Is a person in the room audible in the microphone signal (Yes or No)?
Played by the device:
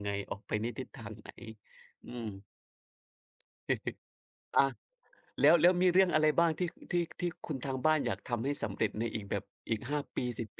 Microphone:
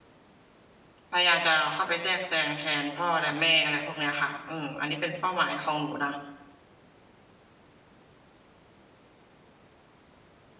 Yes